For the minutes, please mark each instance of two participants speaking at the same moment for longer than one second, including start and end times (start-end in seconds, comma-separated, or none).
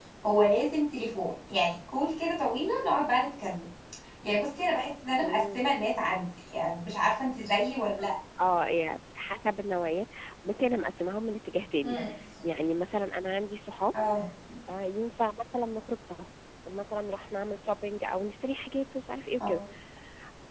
none